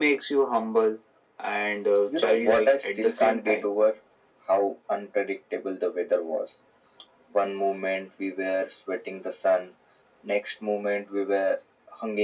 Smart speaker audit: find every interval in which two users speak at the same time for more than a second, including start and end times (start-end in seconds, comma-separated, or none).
2.1-3.7